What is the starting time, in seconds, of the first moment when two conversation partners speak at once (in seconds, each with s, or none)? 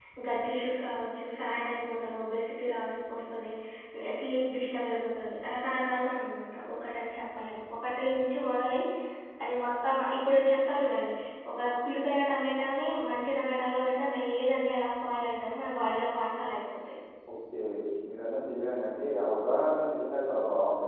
none